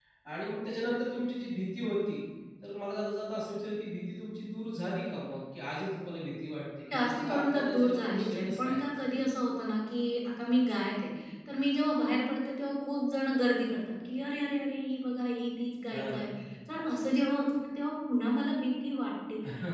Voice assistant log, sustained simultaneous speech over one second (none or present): present